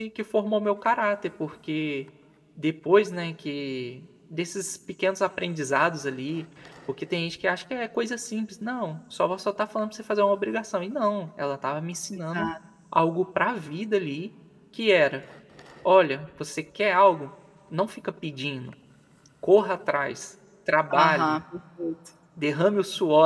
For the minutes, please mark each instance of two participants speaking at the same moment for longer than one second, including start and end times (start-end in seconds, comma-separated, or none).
none